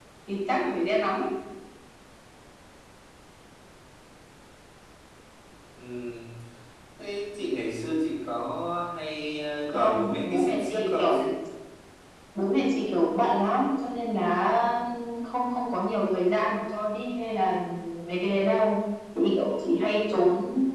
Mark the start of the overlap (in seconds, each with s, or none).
9.7 s